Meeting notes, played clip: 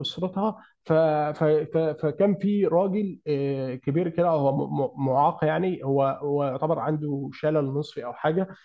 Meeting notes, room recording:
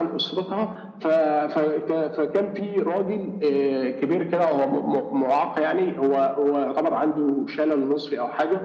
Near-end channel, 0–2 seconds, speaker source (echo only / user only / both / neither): echo only